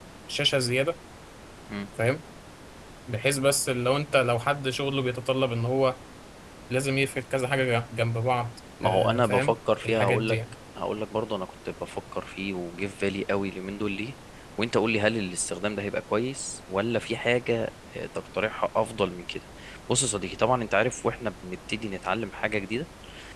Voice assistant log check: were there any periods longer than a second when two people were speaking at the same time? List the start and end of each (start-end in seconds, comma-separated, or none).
8.8-10.4